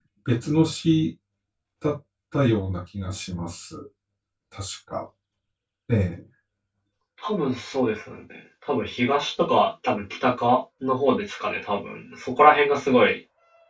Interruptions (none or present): none